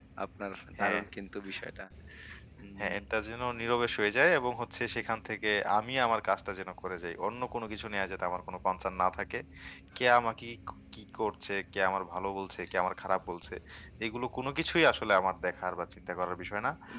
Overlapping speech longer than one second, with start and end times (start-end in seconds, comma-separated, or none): none